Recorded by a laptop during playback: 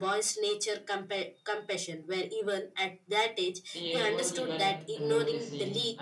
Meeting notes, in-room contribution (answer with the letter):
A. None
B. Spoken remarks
B